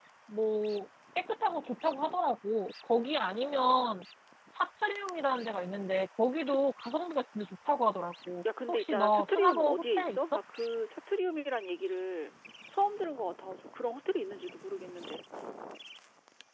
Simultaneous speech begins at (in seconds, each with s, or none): 8.4 s